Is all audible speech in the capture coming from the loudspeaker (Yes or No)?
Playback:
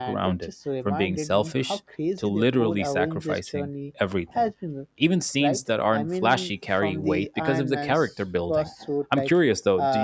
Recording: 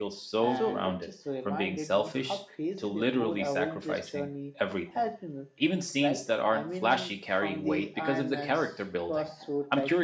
No